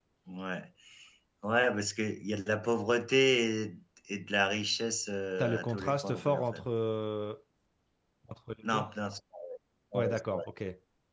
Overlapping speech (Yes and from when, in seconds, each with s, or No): Yes, from 5.4 s